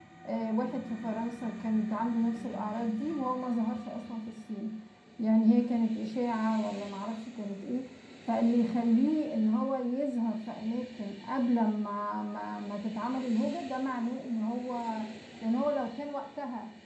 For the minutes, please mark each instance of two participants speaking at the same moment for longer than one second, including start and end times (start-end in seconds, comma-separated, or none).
none